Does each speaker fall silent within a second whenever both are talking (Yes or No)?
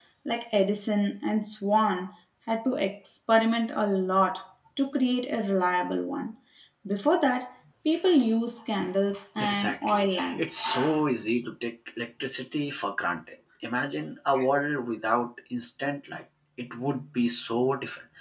No